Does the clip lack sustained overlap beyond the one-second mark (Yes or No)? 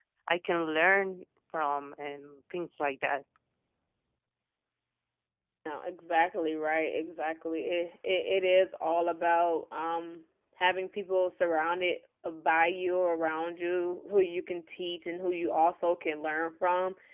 Yes